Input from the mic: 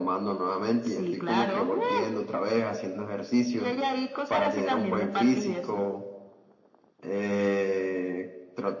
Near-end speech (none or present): none